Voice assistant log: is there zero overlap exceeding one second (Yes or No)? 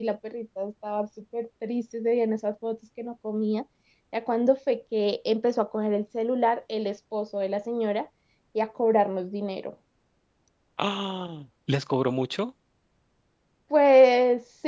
Yes